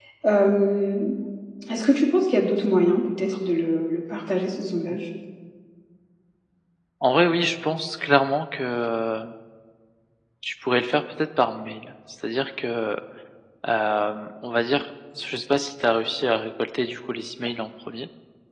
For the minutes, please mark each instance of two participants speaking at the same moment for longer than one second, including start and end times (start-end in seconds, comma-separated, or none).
none